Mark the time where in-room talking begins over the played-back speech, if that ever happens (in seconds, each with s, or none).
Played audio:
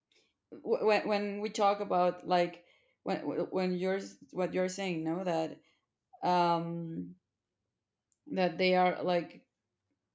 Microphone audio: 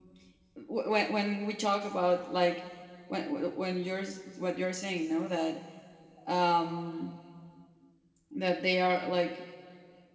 none